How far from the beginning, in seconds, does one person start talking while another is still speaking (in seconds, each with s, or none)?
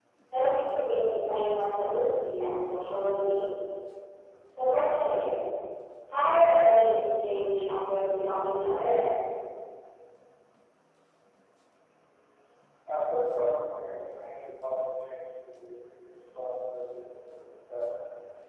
none